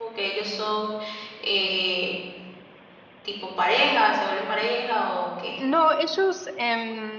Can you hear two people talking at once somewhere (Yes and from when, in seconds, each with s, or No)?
No